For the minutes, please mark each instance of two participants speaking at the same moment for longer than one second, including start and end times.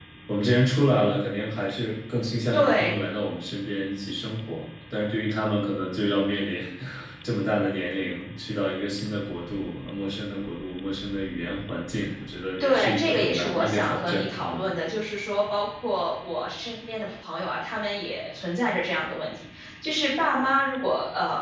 12.6-14.6

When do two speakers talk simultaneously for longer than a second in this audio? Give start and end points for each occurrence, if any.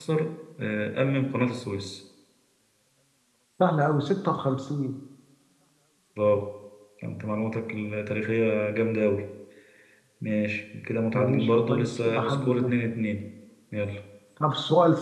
11.1-12.7

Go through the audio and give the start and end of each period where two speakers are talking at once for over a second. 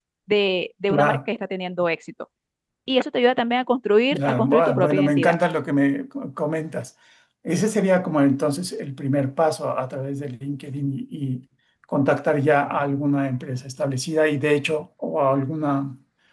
4.1-5.4

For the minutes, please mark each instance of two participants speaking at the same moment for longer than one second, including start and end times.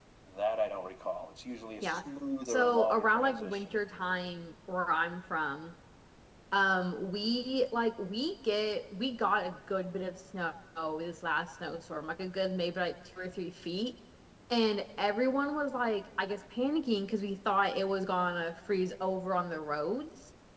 2.4-3.8

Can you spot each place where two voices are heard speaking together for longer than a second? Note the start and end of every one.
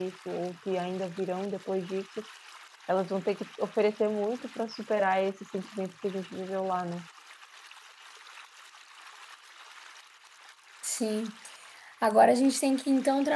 none

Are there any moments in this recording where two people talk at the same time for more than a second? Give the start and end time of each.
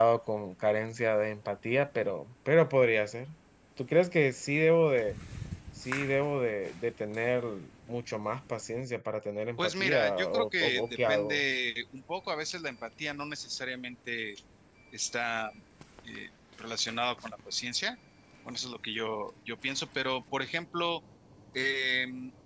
9.6-11.4

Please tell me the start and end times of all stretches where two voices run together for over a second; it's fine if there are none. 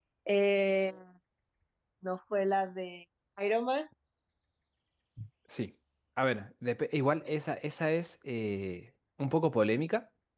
none

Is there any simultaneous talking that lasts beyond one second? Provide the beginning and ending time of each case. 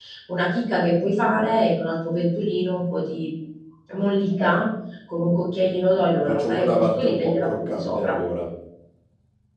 6.2-8.2

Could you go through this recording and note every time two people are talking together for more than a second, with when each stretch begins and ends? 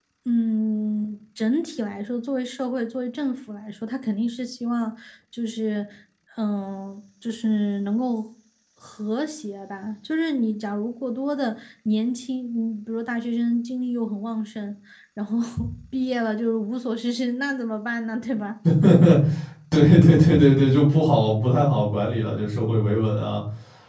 none

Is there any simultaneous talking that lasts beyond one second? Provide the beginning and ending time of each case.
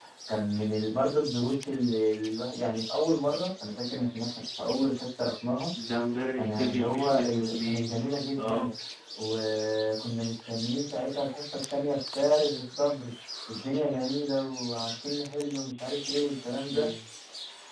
6.3-8.0

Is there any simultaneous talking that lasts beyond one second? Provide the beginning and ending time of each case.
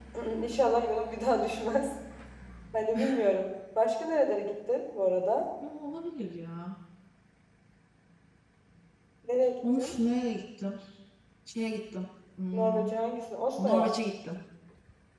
none

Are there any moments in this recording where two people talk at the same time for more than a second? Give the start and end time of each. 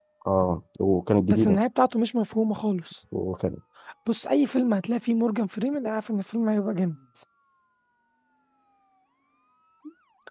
none

